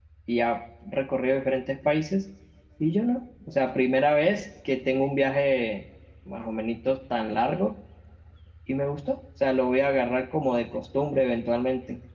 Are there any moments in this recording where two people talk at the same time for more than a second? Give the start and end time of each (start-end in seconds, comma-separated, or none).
none